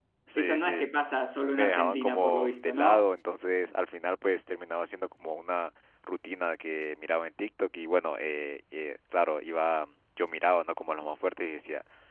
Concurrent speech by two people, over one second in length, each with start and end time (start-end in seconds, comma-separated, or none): 1.5-3.1